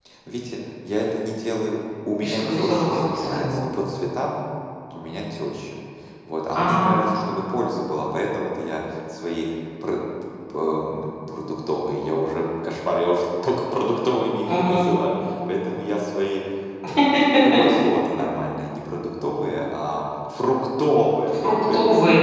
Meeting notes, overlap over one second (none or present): present